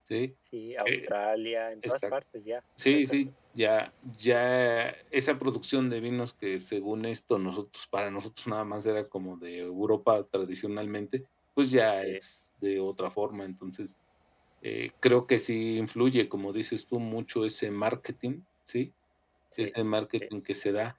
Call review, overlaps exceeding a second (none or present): none